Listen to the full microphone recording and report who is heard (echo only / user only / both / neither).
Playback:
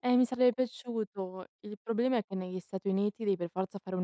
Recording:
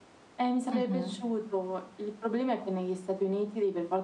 both